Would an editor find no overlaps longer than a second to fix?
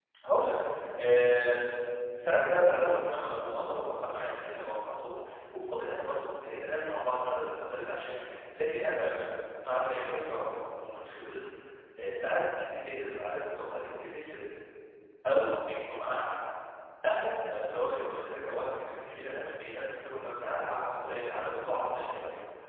No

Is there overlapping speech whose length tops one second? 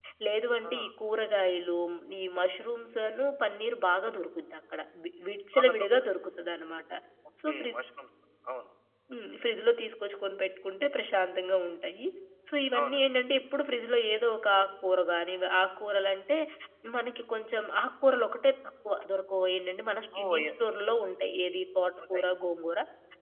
No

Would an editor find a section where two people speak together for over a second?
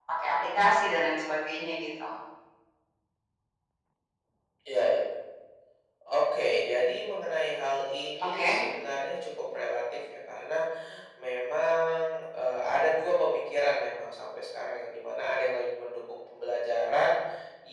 No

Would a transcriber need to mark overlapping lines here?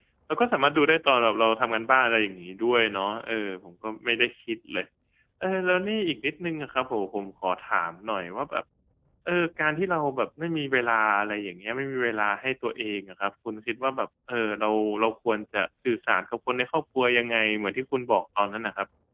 No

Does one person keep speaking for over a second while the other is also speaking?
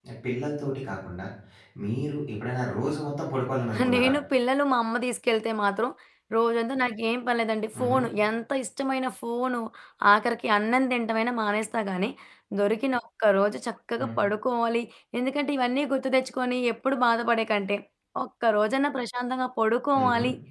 No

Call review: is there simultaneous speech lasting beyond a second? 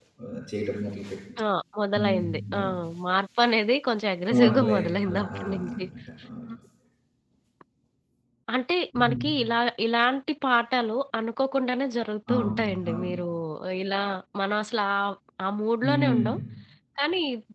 Yes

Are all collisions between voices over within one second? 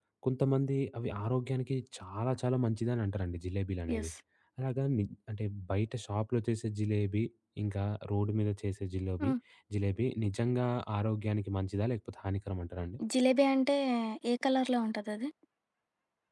Yes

